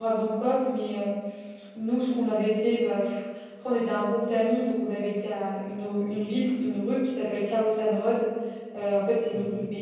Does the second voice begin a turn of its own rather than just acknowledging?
No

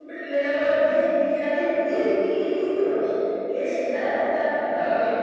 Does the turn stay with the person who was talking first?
Yes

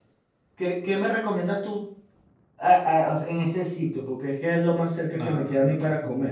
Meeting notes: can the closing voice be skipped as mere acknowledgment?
No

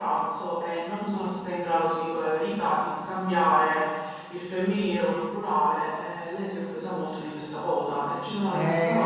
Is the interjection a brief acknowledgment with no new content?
No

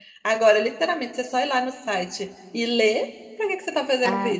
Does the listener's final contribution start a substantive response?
Yes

